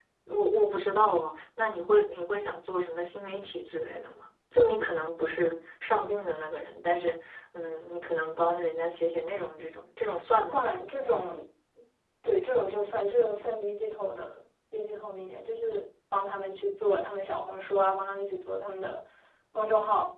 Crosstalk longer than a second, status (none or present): none